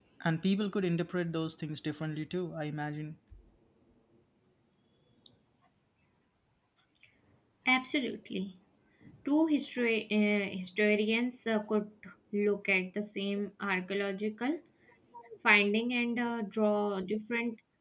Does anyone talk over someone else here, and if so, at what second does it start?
none

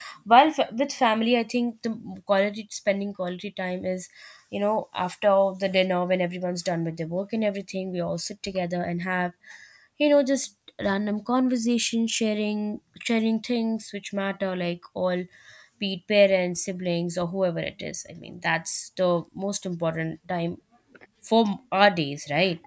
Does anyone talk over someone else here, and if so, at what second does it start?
none

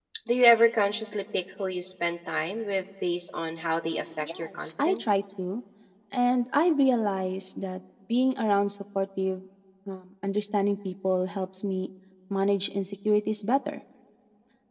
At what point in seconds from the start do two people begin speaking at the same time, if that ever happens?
3.9 s

